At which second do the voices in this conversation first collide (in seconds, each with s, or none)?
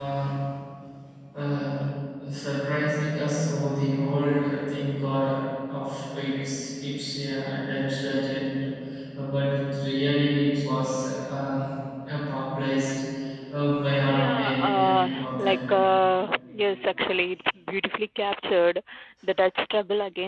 14.1 s